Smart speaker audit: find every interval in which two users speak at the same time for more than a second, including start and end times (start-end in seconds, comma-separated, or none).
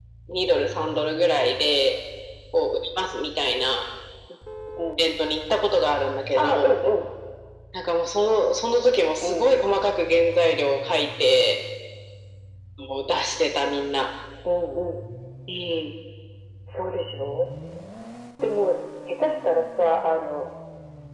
none